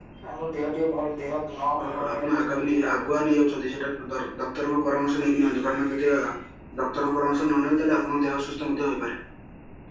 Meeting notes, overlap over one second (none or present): present